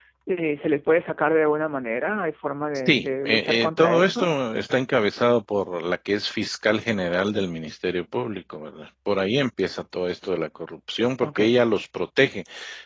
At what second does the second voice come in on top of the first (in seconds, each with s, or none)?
2.9 s